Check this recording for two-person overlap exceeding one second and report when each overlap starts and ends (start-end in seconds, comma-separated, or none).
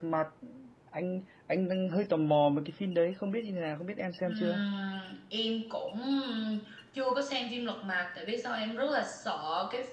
none